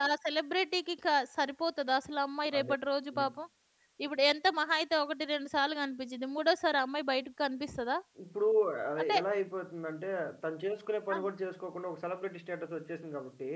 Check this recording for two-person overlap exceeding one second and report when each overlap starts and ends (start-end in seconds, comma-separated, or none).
none